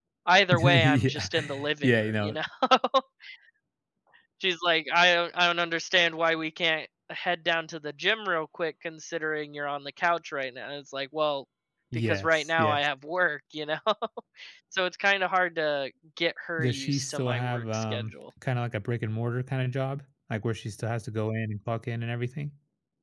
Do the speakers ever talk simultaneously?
Yes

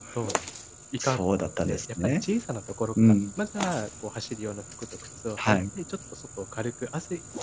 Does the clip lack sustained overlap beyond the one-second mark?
No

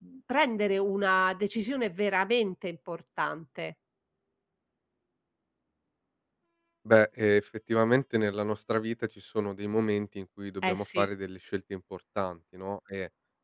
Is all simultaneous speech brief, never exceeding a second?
Yes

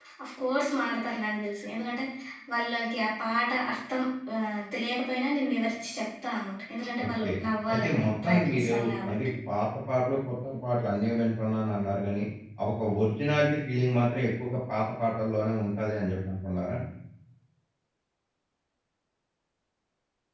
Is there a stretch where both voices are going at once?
Yes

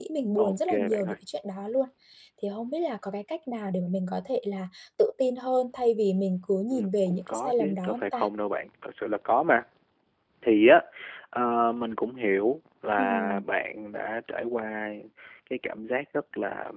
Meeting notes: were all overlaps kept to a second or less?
No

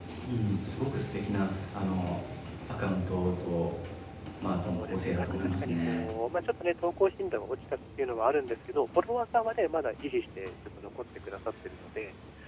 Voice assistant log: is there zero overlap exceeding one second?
No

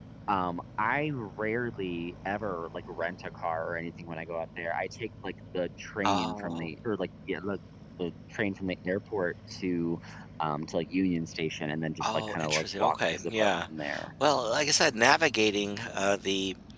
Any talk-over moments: Yes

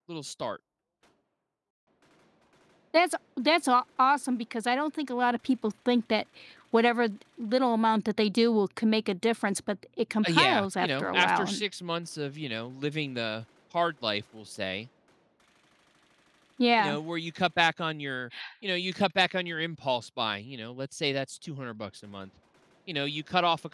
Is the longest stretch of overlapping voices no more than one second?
No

